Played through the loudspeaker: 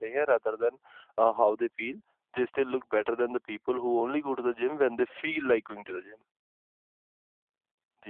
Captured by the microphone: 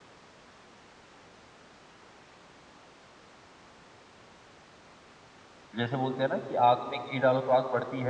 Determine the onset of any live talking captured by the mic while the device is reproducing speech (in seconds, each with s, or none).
5.8 s